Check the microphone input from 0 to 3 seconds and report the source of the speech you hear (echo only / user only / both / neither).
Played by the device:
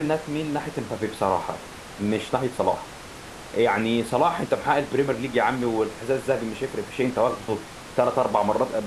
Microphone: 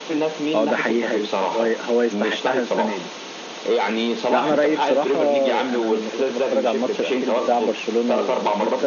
both